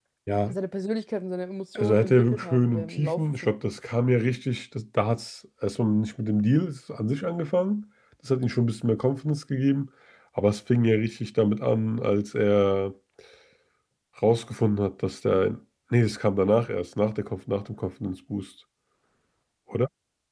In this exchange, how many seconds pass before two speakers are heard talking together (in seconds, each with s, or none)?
1.8 s